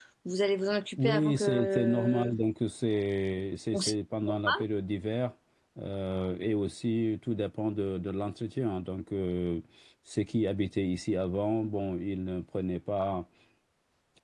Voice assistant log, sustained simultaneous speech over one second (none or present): present